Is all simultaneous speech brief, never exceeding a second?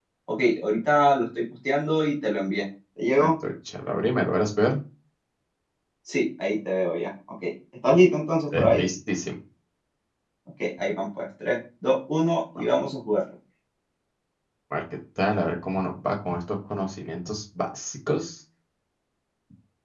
Yes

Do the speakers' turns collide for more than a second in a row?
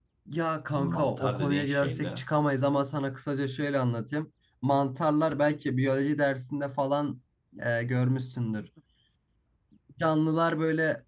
Yes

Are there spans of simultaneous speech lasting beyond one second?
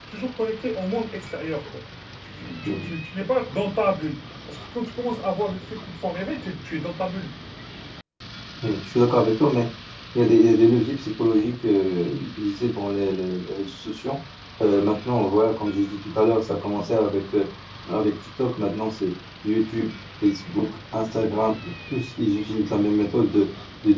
No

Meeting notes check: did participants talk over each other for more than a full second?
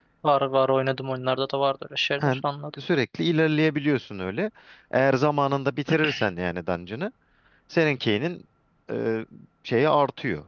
No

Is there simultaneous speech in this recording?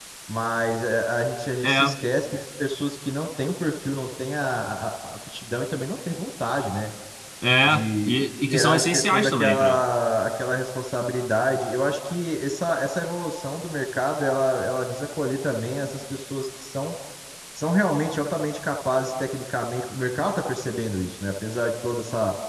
Yes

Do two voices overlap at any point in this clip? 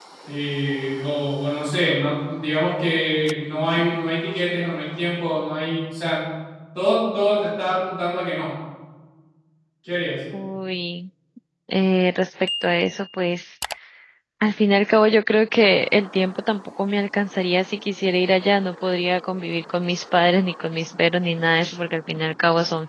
No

